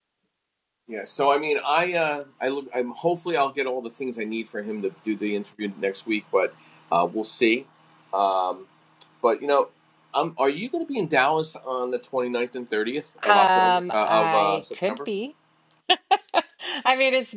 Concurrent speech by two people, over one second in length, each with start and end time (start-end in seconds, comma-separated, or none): 13.3-15.0